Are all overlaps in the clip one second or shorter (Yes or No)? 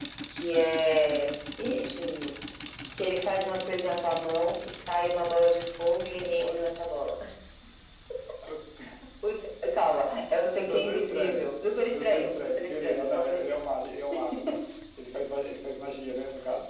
No